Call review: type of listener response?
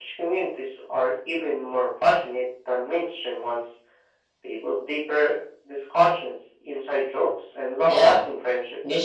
taking over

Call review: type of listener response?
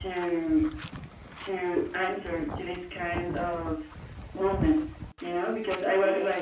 listening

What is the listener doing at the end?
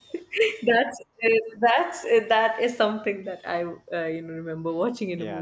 taking over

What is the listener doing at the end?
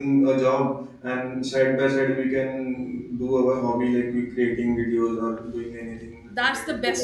taking over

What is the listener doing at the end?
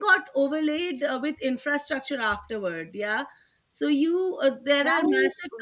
listening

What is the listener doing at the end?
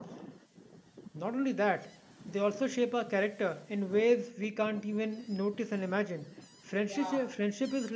listening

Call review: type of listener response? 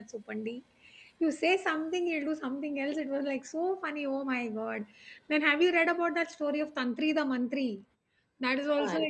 listening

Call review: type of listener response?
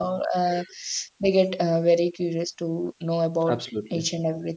listening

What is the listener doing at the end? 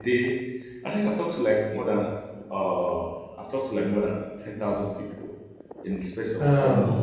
listening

